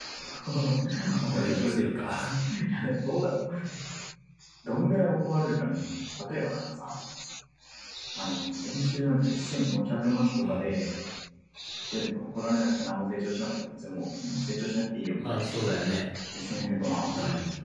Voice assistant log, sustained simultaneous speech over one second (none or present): present